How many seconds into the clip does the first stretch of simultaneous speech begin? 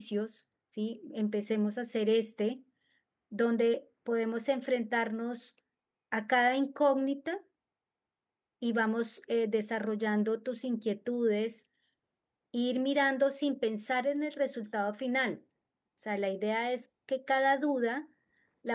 none

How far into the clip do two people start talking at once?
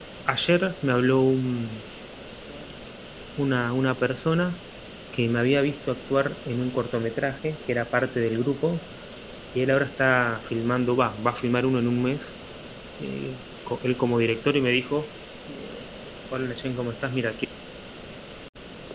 none

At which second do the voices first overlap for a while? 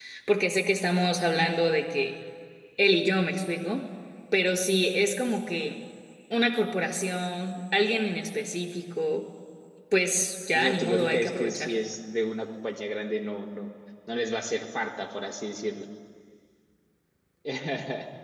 10.5 s

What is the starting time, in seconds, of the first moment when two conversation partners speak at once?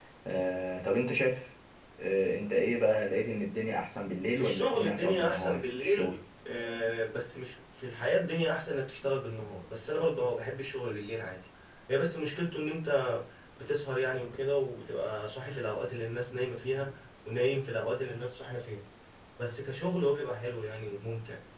4.3 s

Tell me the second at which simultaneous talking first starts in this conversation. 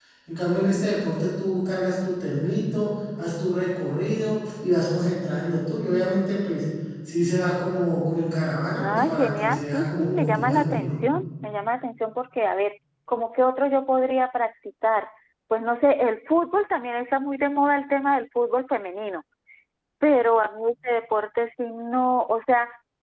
8.8 s

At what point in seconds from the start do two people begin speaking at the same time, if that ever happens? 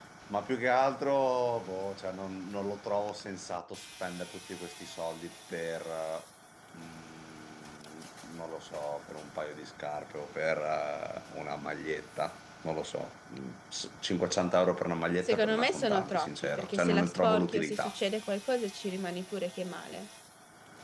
15.2 s

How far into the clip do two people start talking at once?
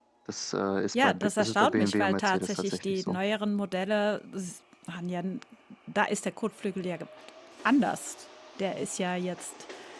0.9 s

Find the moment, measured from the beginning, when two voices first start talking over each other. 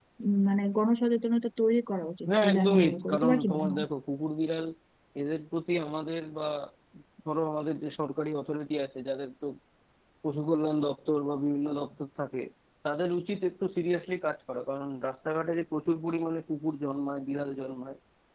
2.2 s

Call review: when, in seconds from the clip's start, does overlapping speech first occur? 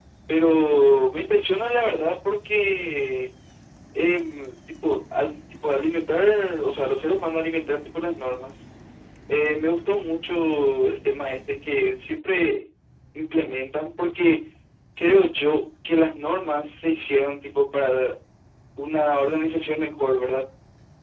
none

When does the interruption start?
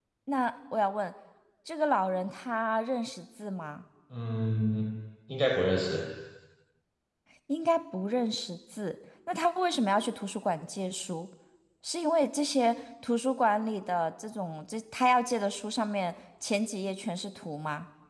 none

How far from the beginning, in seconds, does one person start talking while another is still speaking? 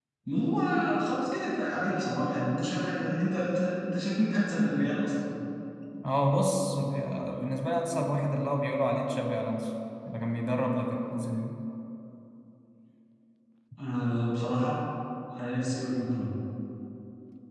none

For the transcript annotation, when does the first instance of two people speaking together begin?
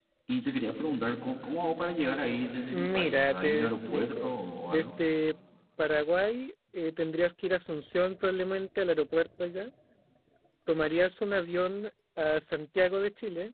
2.7 s

